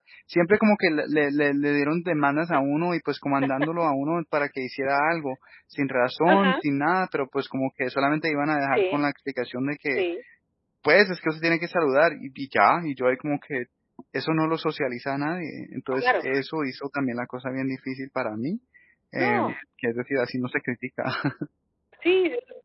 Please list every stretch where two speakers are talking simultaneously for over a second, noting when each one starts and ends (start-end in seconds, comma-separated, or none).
none